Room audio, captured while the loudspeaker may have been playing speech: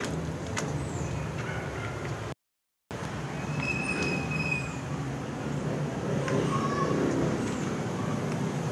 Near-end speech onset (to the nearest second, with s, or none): none